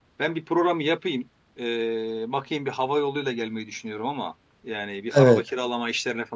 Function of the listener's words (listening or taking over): listening